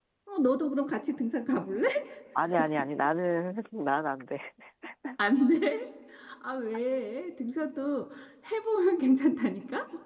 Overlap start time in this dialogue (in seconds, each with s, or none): none